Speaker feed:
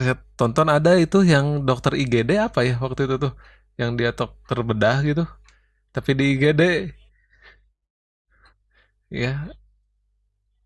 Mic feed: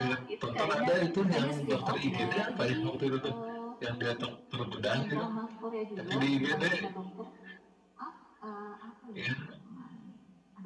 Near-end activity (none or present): present